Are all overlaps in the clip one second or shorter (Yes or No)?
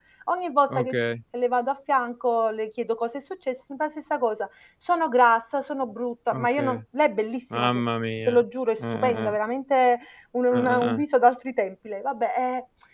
Yes